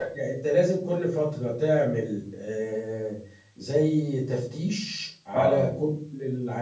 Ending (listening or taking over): listening